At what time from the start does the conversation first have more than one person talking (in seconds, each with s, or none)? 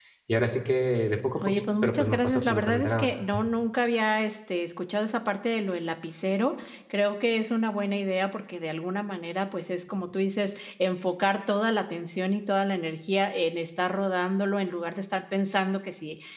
1.4 s